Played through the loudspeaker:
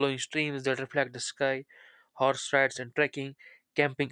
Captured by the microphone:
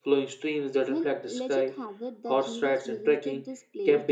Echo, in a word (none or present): present